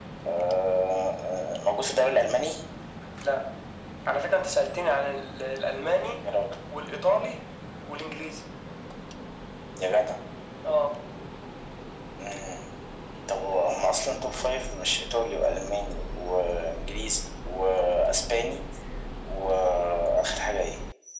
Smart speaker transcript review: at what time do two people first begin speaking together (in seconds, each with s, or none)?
none